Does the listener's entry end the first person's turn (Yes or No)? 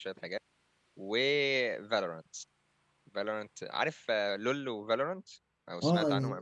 Yes